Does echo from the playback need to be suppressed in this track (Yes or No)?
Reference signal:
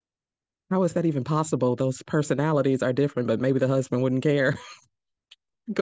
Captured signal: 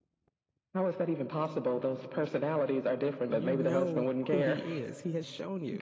Yes